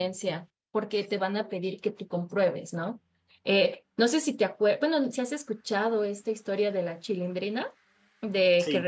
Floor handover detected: No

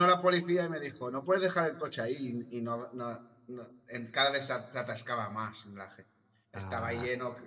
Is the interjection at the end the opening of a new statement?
No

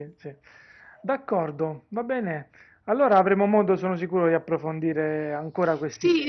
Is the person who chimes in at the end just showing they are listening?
No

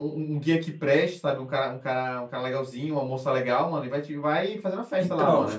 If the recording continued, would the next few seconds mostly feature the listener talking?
Yes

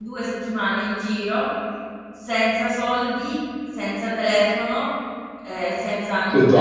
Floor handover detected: No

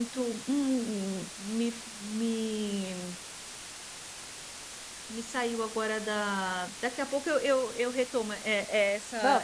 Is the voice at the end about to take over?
No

